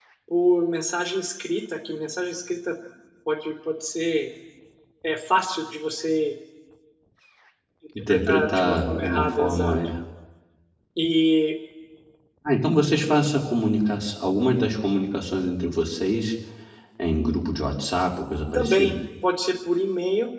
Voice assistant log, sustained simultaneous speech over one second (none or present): present